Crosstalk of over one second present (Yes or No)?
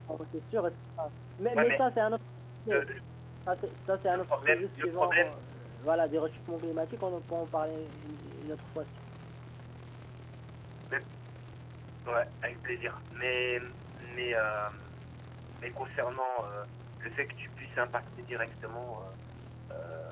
Yes